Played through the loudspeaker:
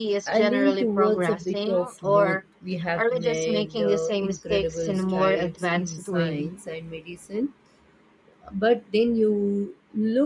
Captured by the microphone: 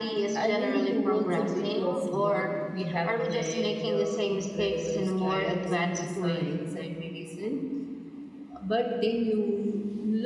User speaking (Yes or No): No